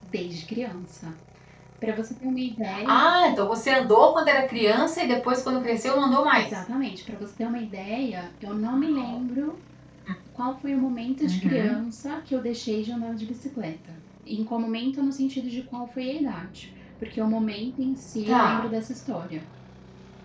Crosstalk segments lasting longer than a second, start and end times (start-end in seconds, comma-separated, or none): none